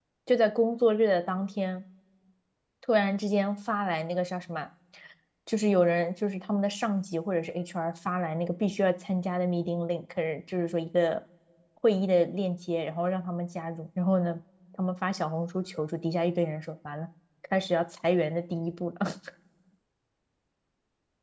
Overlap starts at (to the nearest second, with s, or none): none